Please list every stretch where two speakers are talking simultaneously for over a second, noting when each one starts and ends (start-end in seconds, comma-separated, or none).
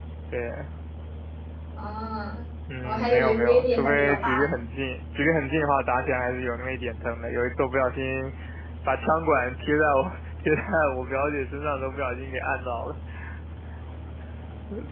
2.8-4.6